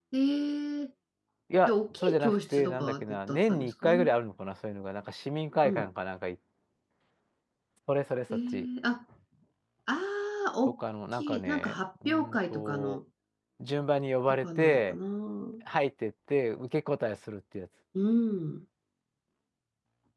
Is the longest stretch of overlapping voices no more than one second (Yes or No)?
No